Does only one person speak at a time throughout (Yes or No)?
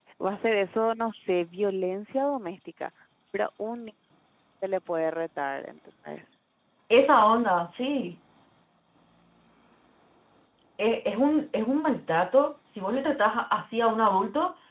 Yes